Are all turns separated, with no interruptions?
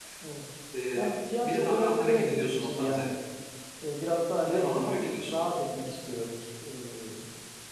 No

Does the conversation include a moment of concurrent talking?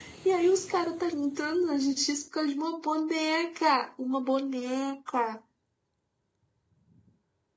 No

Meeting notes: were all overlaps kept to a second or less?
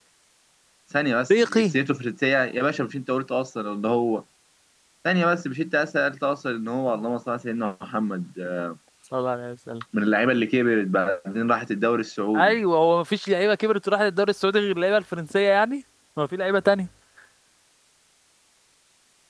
Yes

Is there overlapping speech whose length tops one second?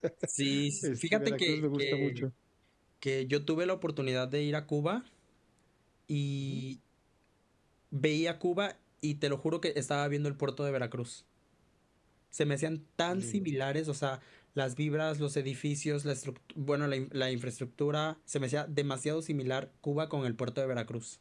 Yes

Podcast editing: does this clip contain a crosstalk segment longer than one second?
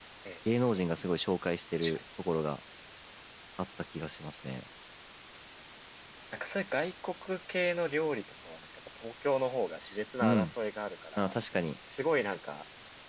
No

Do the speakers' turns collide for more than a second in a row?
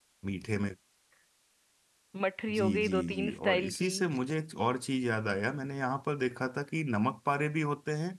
Yes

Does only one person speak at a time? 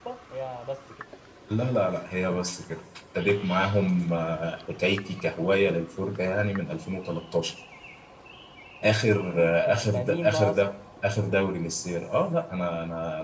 No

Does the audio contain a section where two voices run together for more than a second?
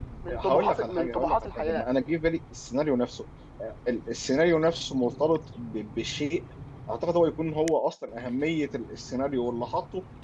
Yes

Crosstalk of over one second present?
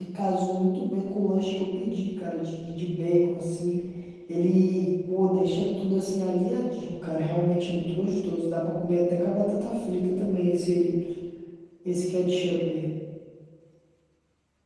No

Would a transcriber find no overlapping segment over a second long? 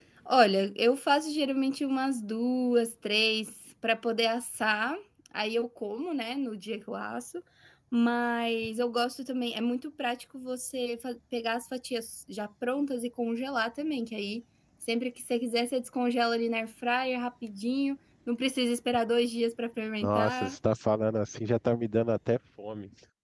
Yes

